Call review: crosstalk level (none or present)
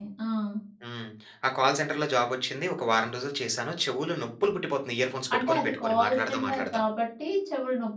present